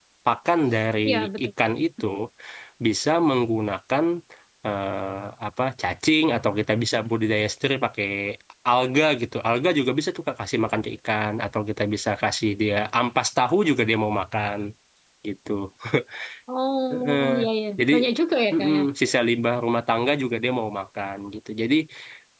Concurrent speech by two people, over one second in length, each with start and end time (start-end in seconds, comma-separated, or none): none